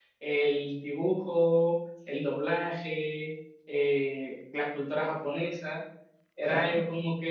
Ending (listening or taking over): listening